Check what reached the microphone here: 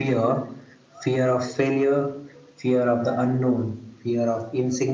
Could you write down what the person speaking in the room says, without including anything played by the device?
none

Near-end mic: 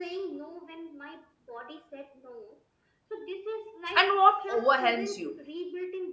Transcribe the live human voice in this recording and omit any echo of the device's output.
and what overwhelms you

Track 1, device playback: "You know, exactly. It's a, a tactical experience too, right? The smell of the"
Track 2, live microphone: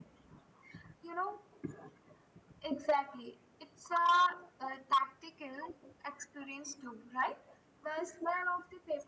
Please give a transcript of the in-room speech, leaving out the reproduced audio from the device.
none

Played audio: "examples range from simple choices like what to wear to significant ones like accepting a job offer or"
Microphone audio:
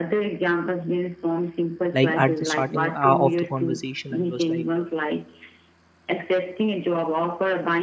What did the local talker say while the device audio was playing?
Like at the starting uh, of the conversation, I was like, uh,

